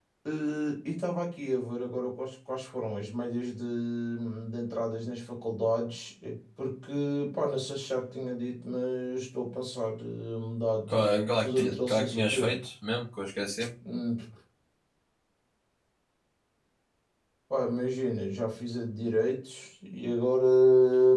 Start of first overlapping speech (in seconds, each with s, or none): 10.9 s